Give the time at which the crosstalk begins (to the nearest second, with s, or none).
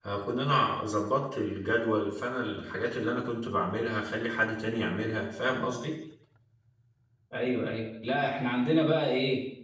none